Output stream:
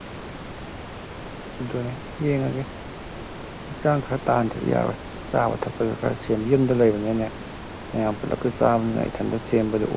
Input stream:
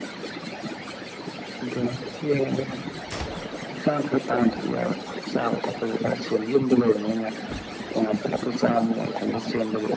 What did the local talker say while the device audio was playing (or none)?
none